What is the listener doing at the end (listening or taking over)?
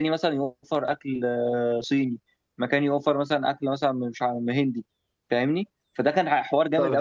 taking over